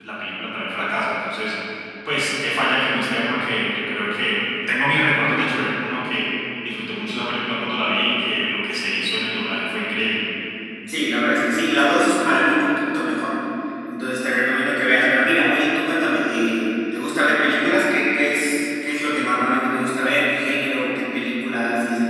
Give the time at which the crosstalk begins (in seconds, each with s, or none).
none